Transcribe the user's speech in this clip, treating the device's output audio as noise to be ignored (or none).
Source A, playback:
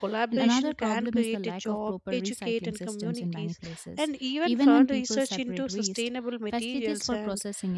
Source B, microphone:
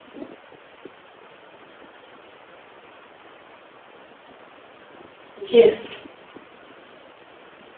Yes,